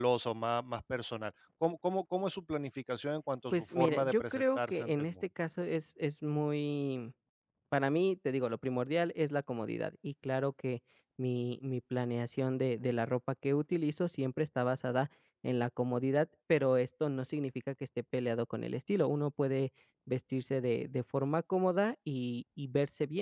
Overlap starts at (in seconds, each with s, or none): 3.5 s